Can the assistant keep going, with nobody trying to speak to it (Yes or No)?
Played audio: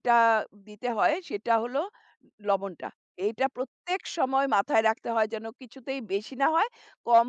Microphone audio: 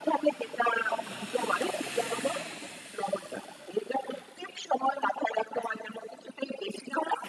Yes